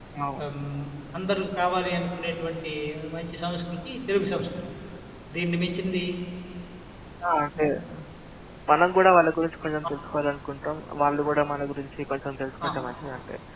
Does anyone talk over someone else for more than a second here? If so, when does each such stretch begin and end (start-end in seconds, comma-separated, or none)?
none